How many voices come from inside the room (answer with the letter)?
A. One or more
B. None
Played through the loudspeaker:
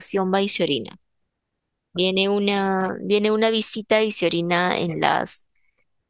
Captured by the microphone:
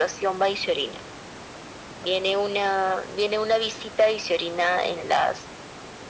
B